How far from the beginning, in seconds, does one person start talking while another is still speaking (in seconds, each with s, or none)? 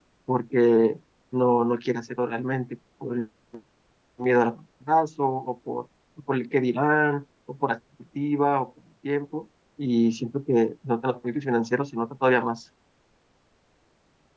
none